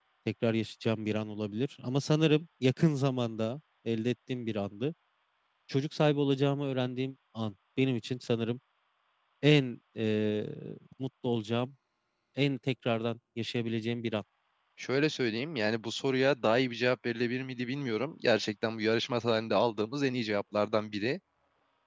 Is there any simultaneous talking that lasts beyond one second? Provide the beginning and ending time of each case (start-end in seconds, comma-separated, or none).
none